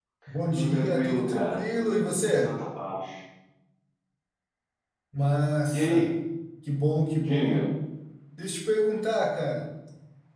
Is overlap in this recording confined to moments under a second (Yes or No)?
No